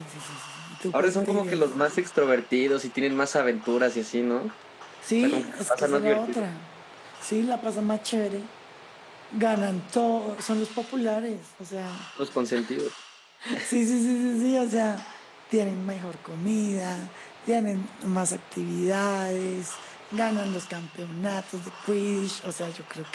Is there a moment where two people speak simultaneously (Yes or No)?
Yes